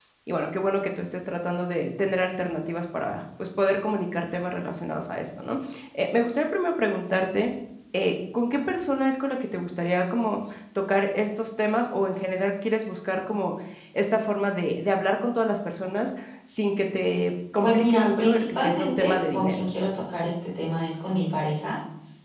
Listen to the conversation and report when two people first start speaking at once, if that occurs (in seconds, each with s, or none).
17.6 s